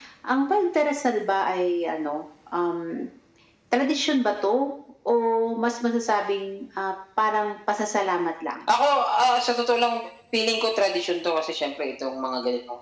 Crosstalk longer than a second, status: none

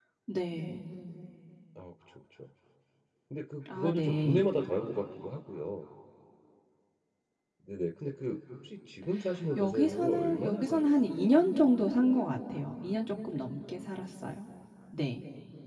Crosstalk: present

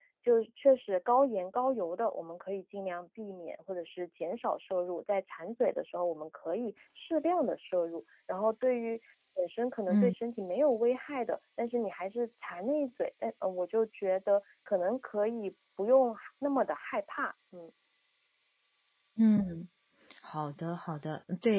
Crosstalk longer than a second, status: none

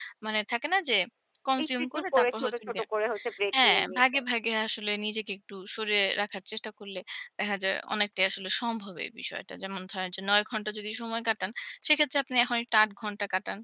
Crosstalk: present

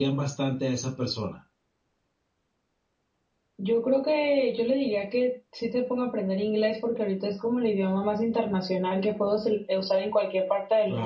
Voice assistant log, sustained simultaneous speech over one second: none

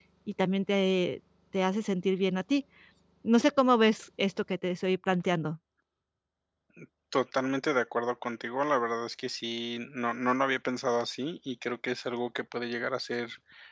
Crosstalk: none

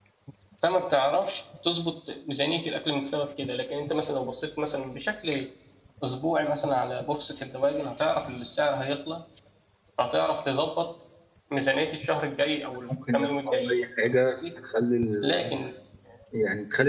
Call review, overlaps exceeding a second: present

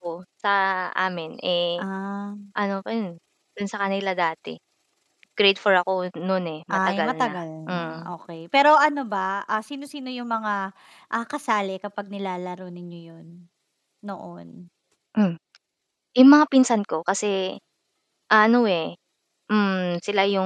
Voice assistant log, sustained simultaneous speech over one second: present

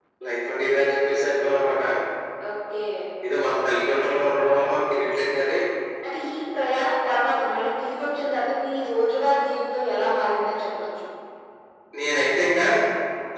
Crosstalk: none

